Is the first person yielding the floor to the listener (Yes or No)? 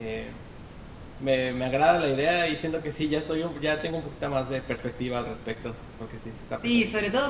Yes